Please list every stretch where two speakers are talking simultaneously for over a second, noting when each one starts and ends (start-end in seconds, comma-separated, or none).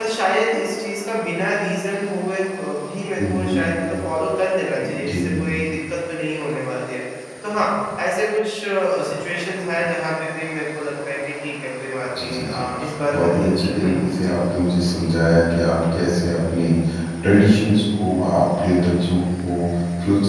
13.1-14.4